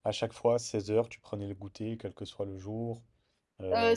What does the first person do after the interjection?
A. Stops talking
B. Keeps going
A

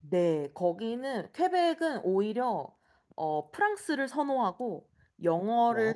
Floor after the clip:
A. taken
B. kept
B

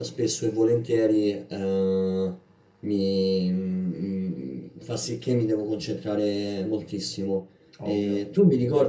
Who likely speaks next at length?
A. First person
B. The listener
A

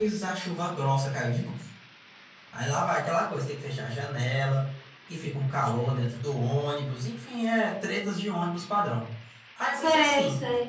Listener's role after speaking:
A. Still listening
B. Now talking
B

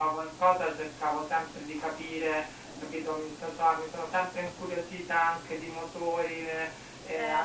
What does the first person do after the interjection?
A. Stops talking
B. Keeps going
B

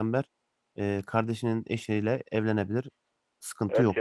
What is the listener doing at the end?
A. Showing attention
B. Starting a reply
B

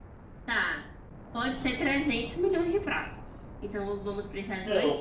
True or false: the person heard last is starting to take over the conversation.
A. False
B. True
B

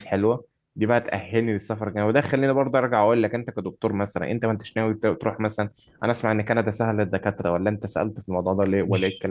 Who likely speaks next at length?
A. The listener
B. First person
A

